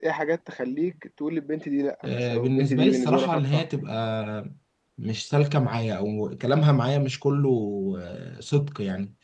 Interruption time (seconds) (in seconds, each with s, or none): 2.0 s